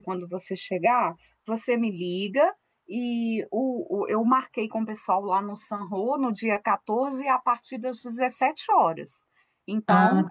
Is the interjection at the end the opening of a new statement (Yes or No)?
No